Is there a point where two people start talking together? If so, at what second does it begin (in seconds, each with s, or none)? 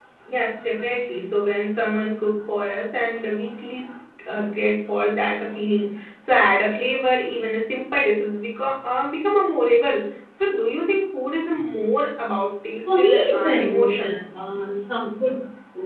12.8 s